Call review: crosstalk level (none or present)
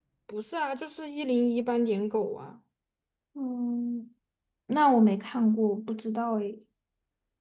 none